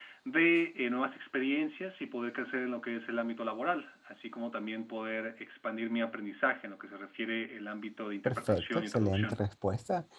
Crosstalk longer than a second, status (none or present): present